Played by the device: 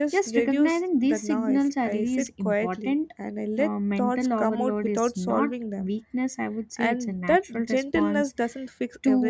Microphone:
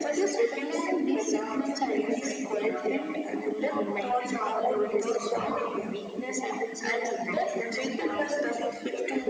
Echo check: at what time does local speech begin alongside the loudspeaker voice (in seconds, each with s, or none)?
none